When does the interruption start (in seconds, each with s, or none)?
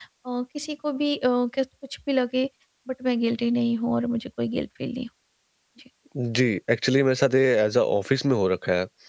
none